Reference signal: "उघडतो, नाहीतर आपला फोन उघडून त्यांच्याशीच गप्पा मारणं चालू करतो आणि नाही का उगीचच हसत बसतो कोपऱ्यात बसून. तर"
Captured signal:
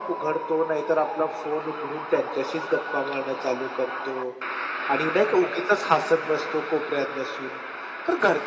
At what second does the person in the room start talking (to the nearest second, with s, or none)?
none